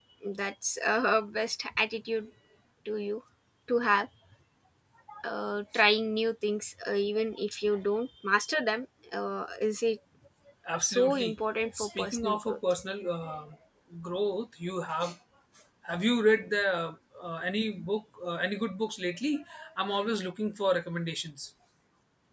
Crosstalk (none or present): present